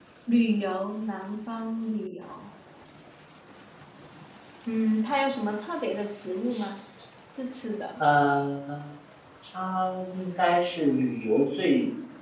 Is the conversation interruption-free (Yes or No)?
Yes